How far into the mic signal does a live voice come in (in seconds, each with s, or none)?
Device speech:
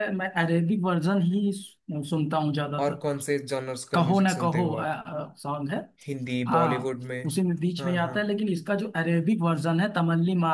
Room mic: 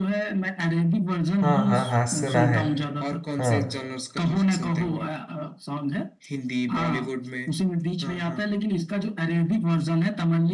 1.4 s